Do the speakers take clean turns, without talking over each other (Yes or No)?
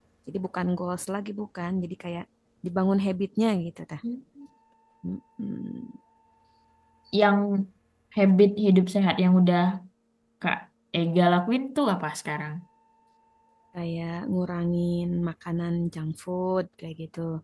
Yes